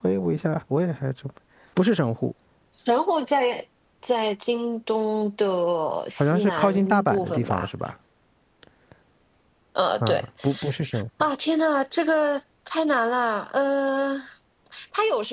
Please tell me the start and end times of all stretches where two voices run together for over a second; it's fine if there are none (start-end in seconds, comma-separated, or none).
6.2-7.7